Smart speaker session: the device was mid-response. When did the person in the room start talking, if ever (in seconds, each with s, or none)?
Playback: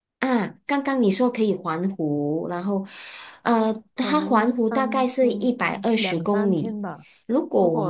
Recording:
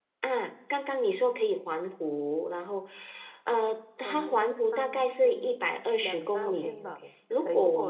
6.5 s